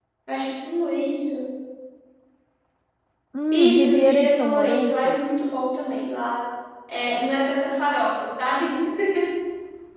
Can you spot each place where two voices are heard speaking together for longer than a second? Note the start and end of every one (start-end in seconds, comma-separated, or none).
3.5-5.2